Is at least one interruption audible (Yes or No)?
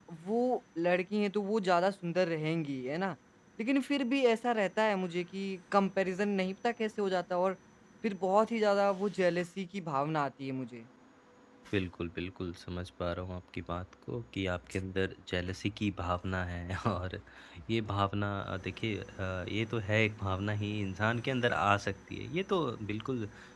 No